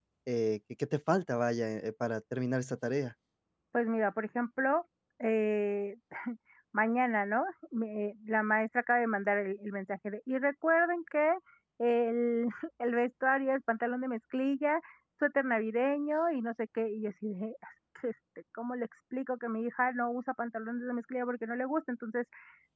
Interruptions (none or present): none